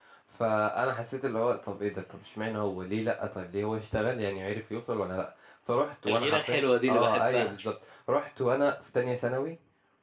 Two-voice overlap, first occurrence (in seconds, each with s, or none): 6.1 s